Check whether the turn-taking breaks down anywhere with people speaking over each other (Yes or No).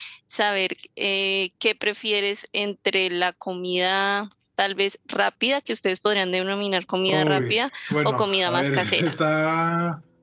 Yes